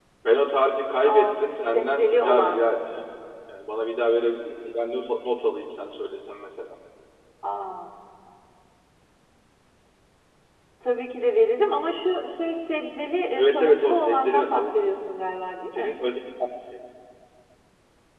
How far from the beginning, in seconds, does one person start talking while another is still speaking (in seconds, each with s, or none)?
1.0 s